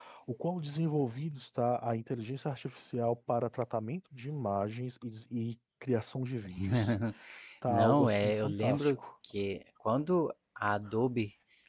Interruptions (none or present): present